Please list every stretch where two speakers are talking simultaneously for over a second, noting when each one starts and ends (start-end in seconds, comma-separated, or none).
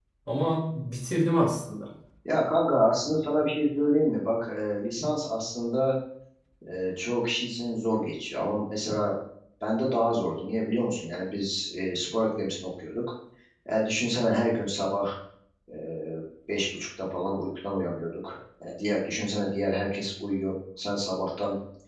none